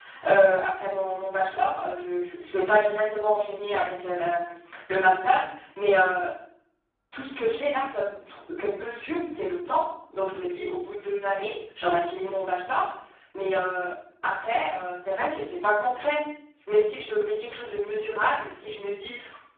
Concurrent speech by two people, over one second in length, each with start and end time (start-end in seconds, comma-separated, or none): none